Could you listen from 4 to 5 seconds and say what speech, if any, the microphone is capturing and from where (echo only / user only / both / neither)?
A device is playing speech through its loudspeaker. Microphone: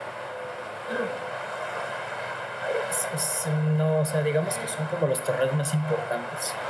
both